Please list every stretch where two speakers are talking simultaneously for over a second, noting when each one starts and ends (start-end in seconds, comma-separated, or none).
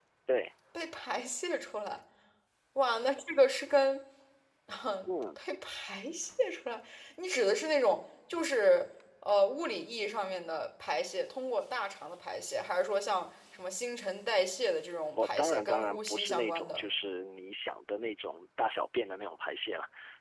15.1-16.8